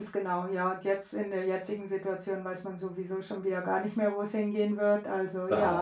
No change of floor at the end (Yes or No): No